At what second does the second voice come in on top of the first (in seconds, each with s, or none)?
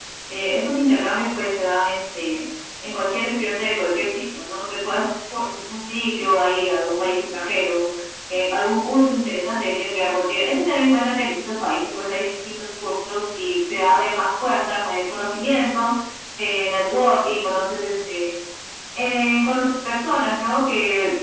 none